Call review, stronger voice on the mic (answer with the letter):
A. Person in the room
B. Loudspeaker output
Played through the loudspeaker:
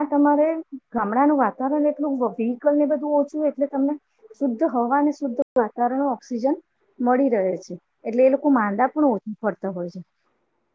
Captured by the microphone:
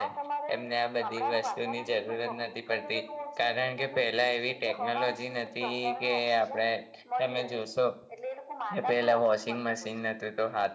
A